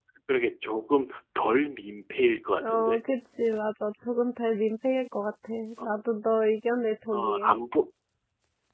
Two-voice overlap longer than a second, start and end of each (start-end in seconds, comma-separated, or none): none